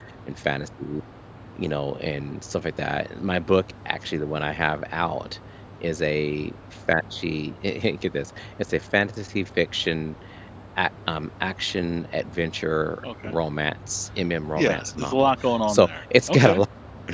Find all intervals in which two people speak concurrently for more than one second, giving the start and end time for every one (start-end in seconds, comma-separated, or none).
14.6-16.6